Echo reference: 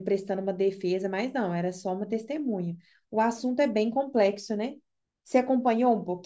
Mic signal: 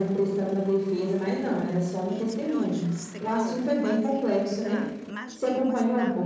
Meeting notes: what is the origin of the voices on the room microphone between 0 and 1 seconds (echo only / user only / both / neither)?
echo only